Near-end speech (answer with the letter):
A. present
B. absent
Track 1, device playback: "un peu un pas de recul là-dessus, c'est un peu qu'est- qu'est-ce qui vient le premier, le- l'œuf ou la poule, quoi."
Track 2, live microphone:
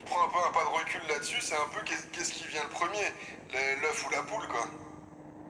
B